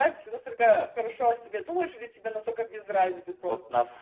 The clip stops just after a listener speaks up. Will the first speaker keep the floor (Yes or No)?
No